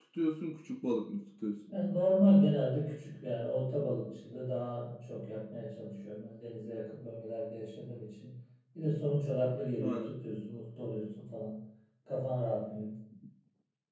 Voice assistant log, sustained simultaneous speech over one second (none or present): none